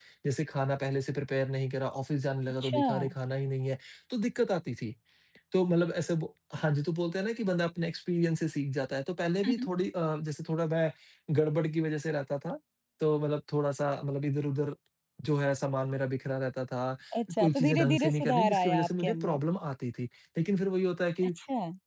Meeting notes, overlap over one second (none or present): present